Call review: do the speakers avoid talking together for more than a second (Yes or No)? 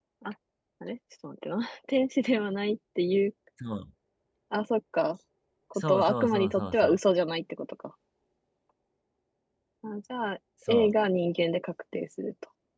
No